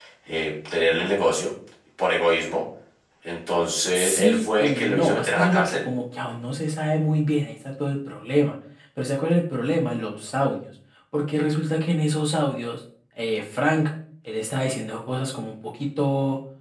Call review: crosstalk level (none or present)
present